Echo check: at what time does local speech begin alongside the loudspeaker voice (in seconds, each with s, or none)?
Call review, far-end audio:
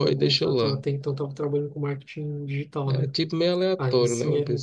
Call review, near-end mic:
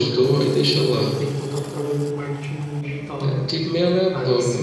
none